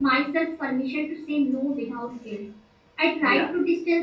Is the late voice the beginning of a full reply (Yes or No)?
No